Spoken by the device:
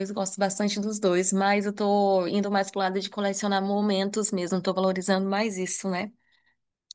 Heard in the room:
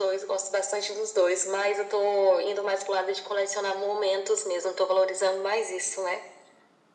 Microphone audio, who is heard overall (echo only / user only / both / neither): echo only